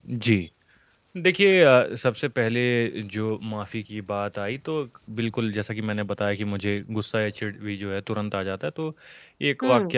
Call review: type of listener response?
listening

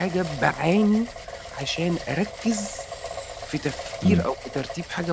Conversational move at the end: listening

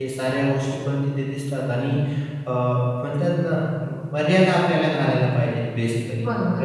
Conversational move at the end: taking over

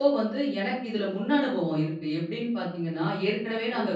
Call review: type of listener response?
listening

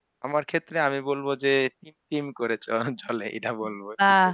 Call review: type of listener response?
taking over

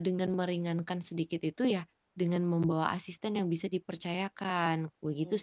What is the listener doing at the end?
taking over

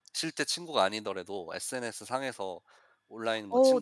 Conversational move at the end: taking over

